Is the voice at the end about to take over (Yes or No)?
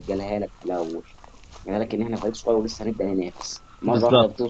No